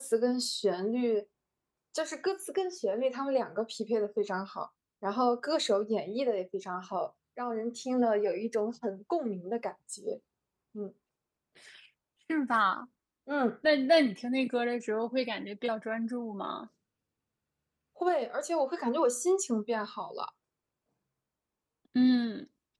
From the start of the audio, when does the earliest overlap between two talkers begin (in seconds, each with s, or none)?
none